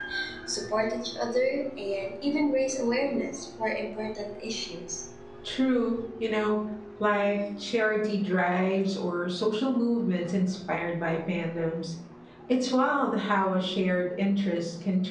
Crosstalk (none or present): none